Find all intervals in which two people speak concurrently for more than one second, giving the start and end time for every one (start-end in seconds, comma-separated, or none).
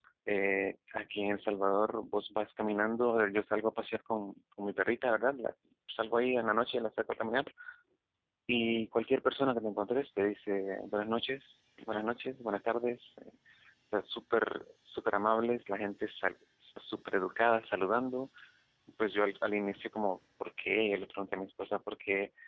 none